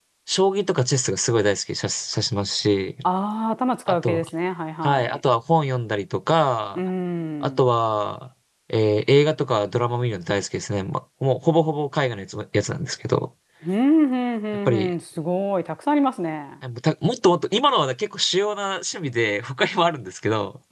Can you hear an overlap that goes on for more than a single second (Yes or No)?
No